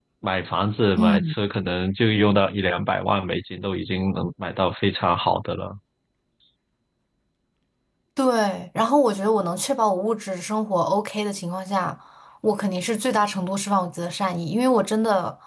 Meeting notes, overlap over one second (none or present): none